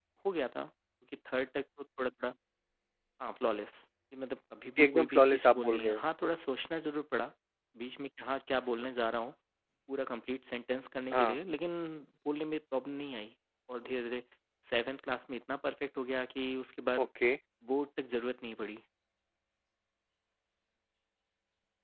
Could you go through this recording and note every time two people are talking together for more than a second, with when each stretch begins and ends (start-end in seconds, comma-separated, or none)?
4.8-6.0